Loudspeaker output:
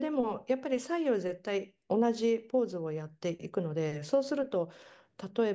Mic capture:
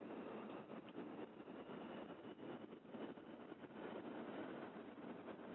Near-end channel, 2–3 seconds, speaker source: neither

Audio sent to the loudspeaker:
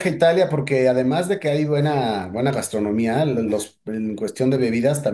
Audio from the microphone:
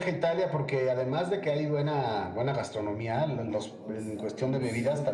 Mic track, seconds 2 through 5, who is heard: both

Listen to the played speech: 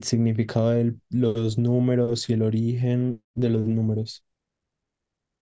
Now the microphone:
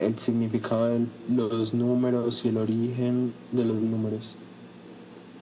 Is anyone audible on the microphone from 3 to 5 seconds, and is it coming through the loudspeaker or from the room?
echo only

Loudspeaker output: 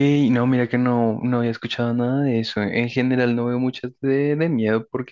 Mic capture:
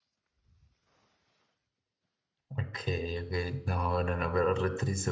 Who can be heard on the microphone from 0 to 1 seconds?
neither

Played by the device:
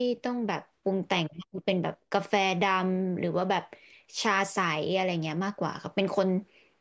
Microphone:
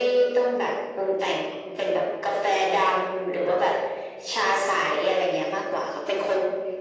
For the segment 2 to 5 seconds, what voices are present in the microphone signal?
echo only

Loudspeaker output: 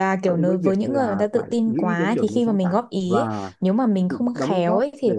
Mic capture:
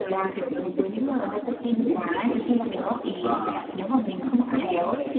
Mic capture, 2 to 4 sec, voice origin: echo only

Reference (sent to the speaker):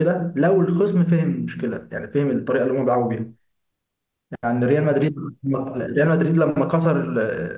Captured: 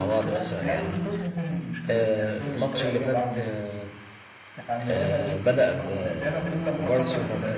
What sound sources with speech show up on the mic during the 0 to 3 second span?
both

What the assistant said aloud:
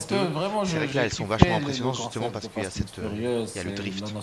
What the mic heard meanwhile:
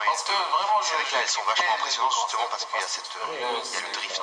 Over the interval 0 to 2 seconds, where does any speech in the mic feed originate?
echo only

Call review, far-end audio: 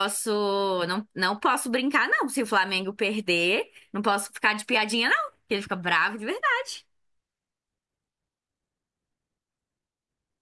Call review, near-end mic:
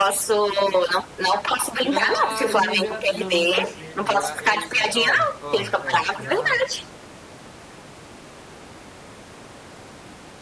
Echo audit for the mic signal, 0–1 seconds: echo only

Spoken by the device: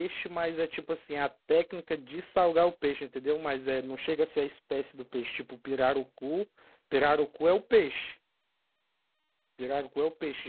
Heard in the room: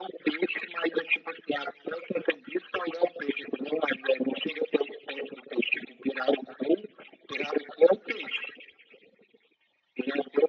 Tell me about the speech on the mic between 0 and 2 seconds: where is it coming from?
echo only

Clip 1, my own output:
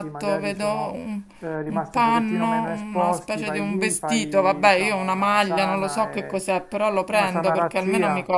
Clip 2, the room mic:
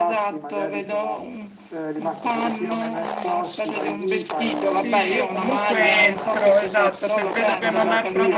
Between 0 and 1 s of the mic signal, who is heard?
echo only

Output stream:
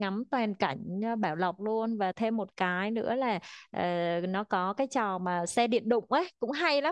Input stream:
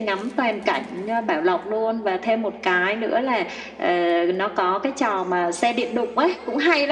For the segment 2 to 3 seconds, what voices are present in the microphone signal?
echo only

